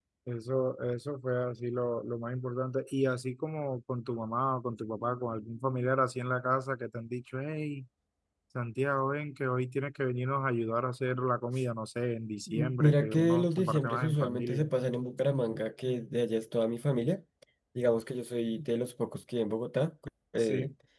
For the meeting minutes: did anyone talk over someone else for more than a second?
Yes, from 12.5 s

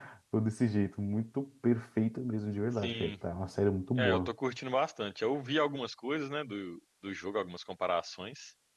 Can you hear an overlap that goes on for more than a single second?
No

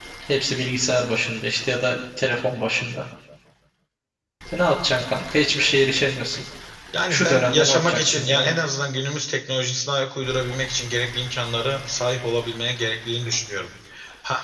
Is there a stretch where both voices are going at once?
Yes, from 7.1 s

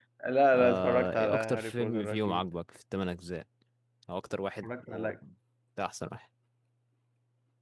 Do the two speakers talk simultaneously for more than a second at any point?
Yes, from 0.6 s

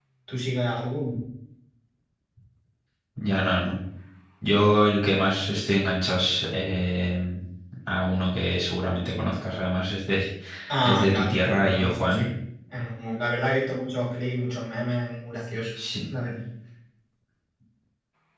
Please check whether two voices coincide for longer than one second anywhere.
Yes, from 10.8 s

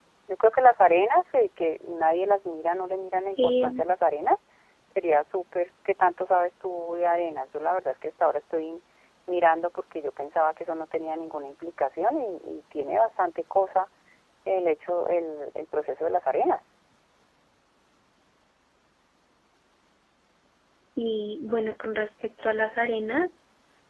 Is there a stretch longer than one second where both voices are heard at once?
No

